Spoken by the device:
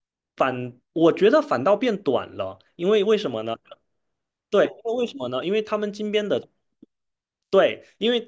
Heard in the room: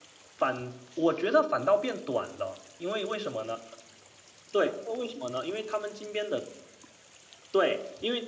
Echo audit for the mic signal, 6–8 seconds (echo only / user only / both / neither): echo only